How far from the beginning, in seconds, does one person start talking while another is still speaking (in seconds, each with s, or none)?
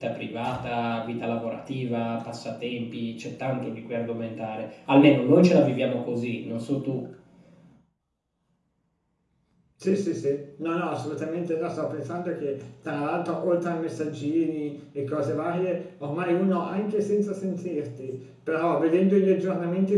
none